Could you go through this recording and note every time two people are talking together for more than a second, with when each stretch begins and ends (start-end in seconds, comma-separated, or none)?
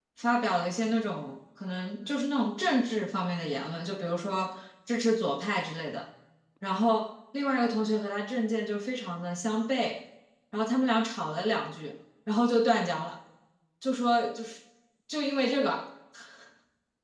none